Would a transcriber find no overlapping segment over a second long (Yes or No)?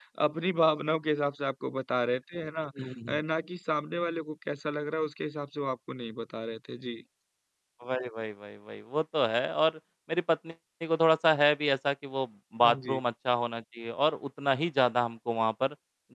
Yes